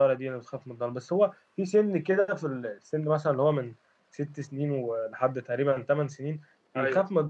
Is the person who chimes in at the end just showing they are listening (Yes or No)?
Yes